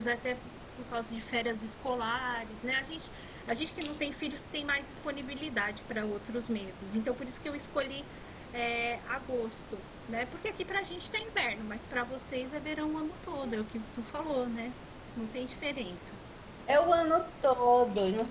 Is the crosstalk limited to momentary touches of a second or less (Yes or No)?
Yes